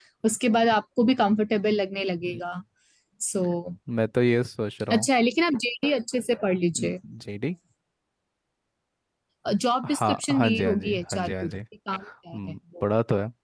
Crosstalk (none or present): present